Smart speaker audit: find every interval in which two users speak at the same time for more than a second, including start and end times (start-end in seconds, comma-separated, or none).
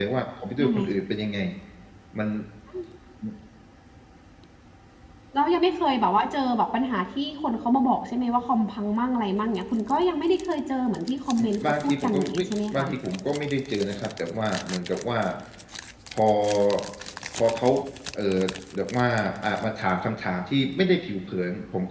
11.4-12.9